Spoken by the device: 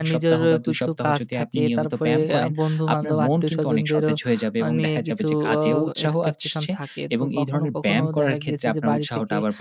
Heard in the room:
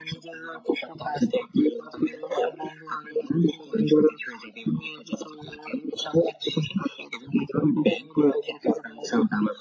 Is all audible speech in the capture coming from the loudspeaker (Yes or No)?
Yes